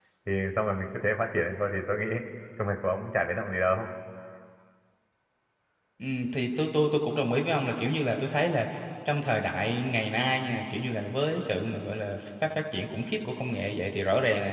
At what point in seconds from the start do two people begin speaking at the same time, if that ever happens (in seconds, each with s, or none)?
none